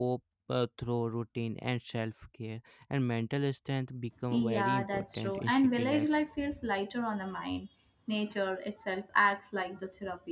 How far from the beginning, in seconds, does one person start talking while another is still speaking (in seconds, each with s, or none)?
4.3 s